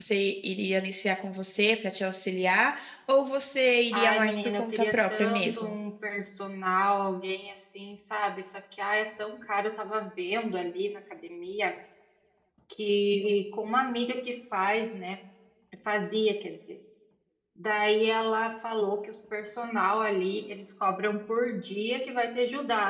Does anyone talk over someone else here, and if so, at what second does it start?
3.9 s

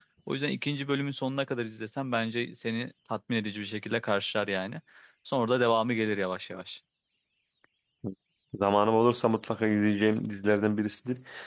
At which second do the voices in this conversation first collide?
none

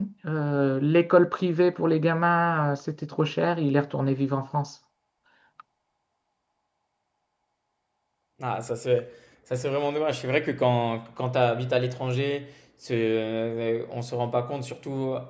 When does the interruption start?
none

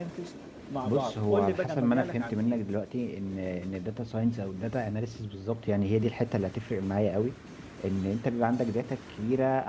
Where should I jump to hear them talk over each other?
0.8 s

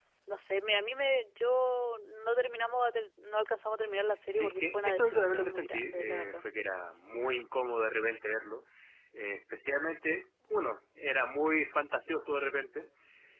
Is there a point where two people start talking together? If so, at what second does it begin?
4.3 s

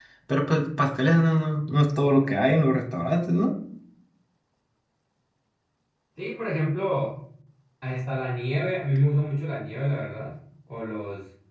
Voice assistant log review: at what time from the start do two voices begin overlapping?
none

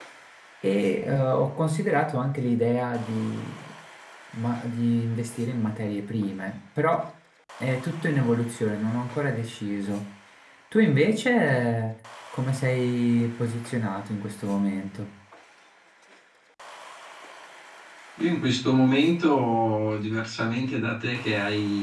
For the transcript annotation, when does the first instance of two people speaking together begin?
none

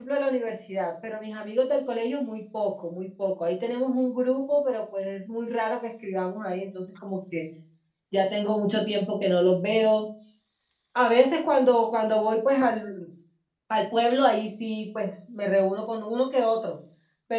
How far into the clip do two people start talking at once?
none

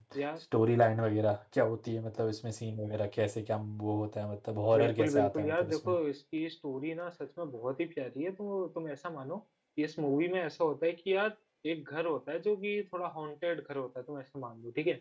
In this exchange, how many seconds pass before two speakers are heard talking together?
4.7 s

